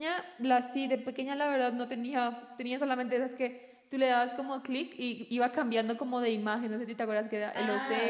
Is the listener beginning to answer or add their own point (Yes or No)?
Yes